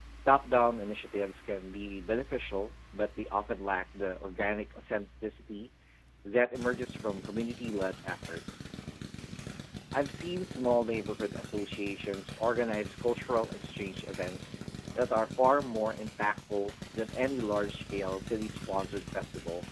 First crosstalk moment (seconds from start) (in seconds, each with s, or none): none